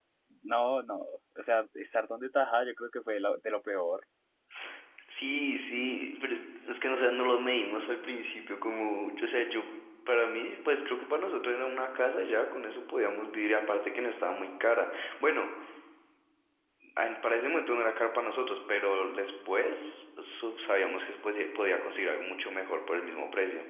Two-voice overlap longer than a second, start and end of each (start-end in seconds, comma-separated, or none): none